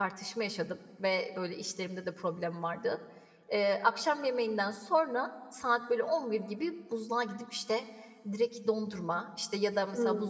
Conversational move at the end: listening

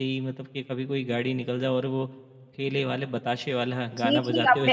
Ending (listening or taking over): taking over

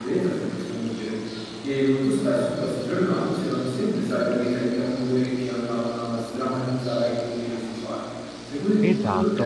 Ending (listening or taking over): taking over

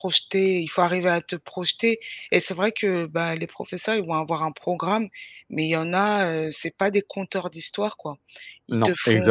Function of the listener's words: listening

